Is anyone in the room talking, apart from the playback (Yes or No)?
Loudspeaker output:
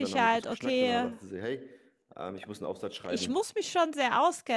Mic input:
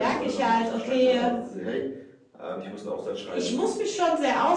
No